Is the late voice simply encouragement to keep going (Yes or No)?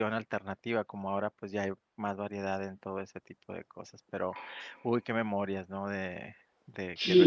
No